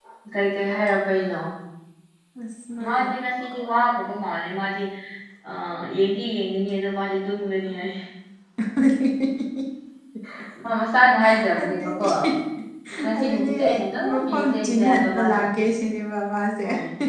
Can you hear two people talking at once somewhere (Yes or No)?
Yes